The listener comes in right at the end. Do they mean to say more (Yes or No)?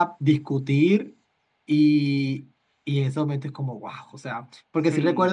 No